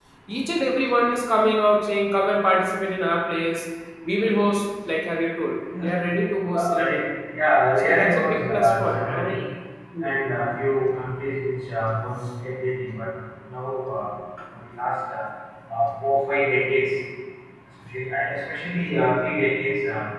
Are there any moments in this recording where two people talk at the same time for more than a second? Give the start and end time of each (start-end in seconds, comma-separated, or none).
7.8-9.4